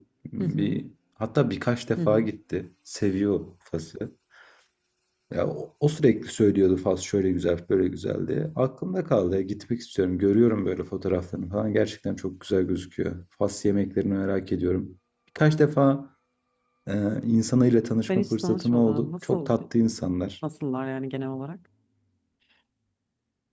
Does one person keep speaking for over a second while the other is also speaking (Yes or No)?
Yes